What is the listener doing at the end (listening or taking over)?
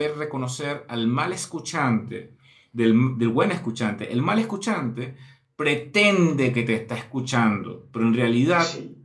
listening